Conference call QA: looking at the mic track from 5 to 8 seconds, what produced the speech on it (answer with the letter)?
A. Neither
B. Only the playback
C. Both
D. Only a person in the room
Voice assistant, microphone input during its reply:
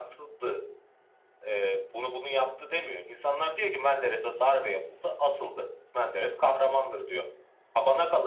B